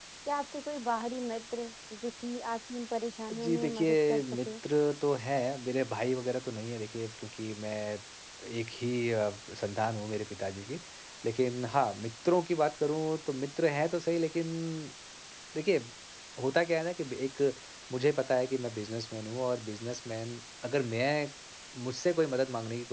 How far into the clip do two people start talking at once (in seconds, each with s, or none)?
3.3 s